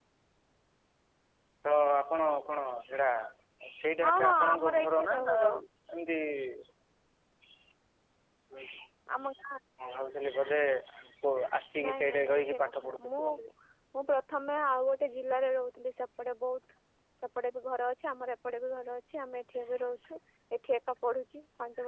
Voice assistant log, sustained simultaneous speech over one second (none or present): present